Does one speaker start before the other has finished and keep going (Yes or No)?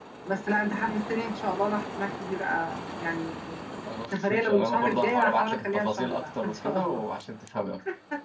Yes